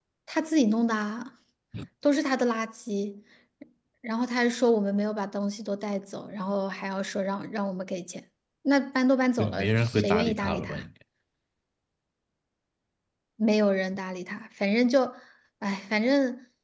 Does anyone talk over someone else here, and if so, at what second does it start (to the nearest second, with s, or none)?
9 s